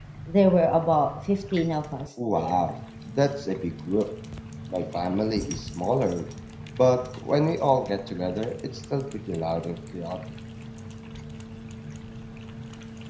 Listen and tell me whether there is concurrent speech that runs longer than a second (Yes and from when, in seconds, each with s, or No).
No